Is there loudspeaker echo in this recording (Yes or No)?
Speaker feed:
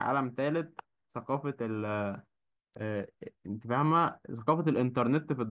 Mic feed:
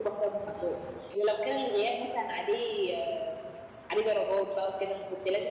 No